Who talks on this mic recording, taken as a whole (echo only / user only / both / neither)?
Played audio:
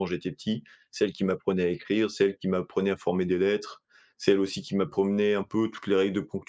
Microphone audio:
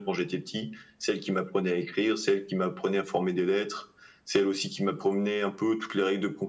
echo only